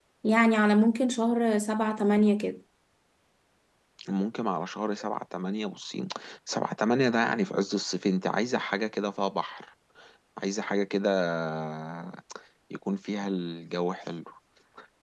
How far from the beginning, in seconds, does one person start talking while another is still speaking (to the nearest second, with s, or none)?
none